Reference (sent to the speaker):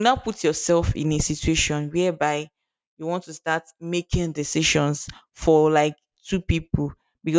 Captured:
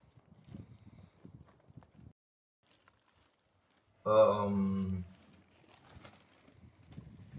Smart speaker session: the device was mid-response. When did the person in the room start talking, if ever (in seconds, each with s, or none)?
4.0 s